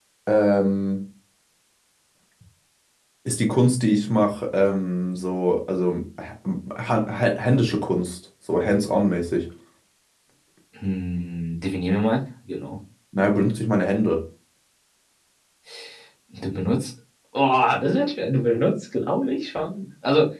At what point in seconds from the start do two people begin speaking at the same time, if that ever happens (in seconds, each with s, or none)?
none